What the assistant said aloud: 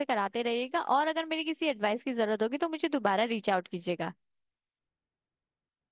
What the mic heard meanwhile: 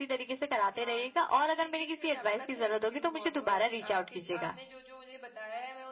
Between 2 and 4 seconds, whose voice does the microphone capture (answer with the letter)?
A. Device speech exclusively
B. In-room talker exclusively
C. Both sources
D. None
C